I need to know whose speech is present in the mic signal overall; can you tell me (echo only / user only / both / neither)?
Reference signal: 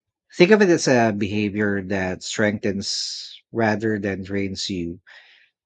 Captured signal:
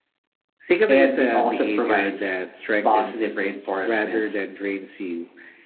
both